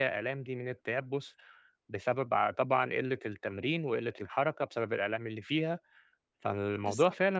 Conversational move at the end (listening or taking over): listening